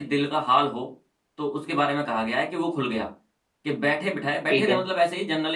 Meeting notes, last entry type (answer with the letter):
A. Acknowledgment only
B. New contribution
A